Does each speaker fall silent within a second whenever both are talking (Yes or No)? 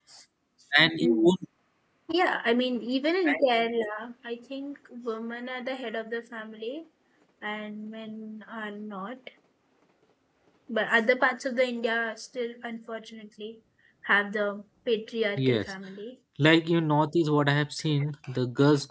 Yes